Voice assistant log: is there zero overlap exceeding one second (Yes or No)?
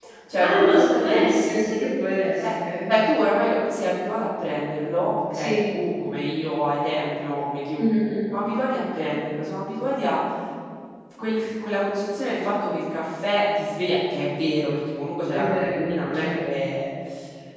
No